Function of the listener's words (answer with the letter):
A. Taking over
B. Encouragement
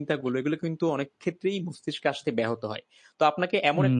B